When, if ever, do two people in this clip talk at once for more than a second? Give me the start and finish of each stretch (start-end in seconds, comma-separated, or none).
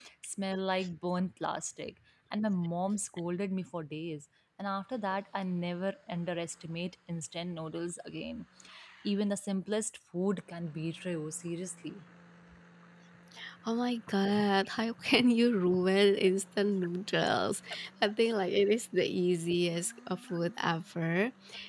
none